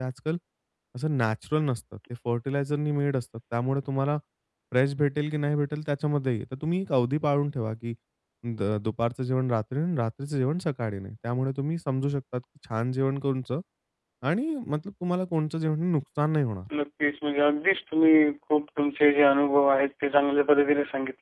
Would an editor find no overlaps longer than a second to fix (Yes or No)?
Yes